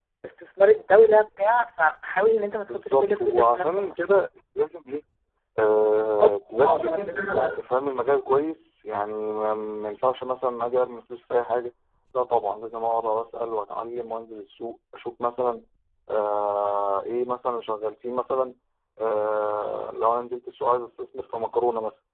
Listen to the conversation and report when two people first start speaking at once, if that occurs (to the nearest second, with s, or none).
3 s